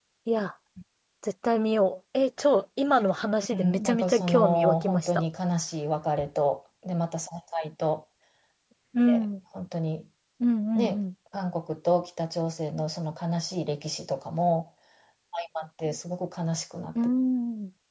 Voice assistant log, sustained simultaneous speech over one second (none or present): present